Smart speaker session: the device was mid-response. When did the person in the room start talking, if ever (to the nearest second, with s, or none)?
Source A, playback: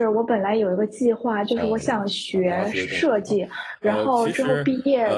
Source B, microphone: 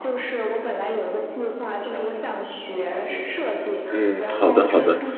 4 s